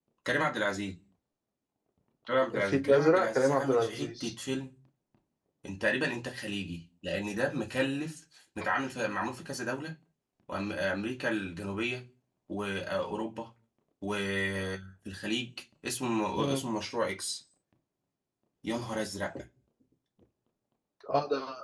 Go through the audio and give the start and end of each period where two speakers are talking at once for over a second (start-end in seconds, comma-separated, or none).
2.5-4.3